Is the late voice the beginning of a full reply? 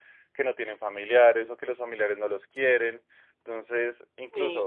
Yes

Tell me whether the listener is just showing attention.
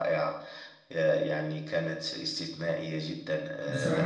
No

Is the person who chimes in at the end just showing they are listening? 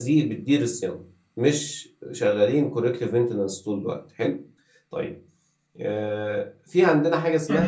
No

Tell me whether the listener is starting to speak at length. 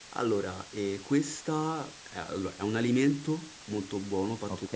No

